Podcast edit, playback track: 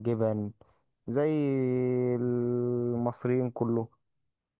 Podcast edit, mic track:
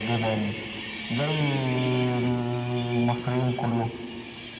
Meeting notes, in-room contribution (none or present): none